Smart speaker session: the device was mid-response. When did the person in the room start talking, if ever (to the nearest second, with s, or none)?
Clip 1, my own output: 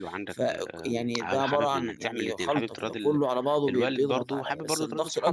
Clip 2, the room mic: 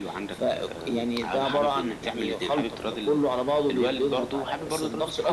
none